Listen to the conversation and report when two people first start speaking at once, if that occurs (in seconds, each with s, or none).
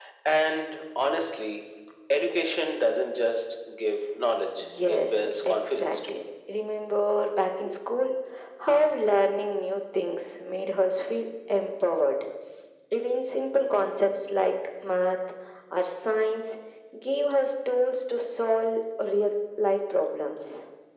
4.6 s